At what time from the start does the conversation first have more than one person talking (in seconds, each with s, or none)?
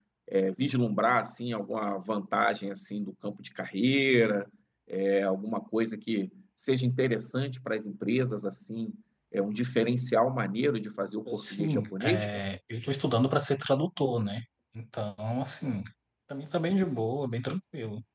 11.2 s